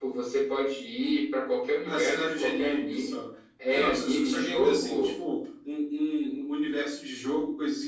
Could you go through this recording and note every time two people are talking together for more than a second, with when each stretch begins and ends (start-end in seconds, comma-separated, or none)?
1.9-3.1, 3.7-5.1